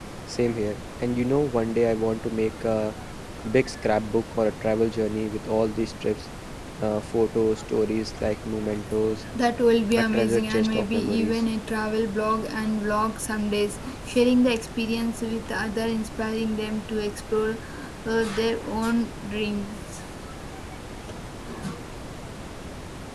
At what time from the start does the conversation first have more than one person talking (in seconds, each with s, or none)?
10.0 s